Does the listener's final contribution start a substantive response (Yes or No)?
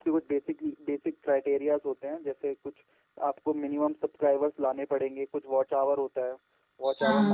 No